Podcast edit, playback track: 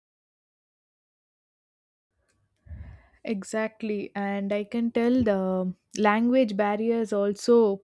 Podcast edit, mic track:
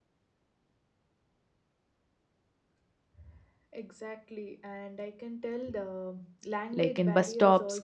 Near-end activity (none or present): present